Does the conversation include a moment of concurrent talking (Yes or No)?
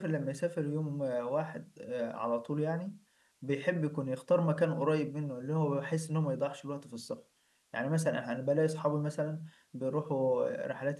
No